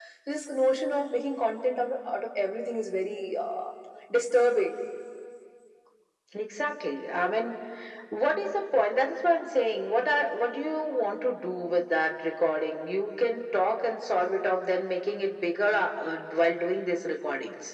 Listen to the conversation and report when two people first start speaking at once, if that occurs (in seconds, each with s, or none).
none